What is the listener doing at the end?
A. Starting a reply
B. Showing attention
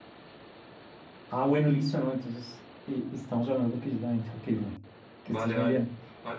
A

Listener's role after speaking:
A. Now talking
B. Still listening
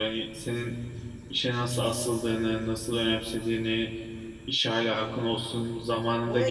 A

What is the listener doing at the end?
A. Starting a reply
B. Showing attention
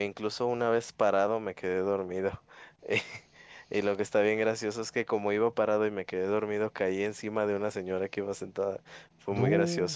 B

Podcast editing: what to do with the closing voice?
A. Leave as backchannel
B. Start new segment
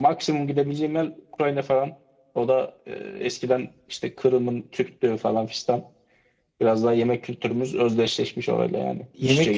B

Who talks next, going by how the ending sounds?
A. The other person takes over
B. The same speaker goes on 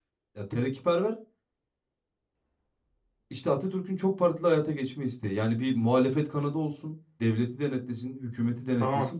A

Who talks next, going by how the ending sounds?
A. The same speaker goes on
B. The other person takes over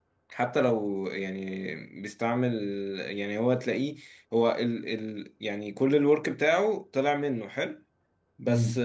A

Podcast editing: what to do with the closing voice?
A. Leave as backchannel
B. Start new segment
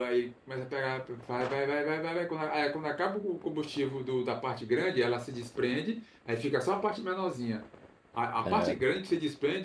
A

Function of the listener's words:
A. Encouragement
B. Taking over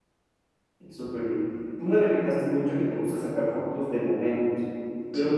A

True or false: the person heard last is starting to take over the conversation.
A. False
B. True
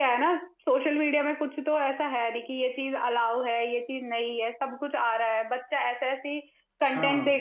A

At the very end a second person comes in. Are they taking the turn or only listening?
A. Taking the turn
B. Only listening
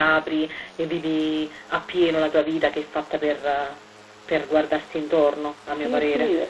A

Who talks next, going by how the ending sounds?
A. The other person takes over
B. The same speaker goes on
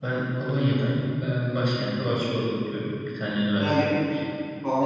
A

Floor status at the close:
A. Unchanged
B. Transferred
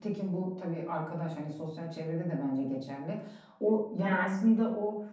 A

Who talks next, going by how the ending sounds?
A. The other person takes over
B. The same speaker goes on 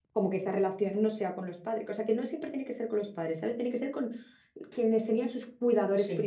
A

